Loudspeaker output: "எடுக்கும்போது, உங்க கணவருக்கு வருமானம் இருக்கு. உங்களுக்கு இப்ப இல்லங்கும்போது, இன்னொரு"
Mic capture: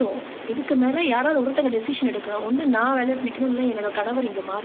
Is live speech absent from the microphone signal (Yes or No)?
No